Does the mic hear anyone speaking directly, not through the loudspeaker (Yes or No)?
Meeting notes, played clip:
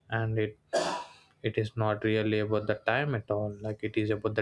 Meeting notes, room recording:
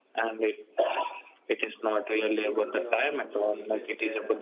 Yes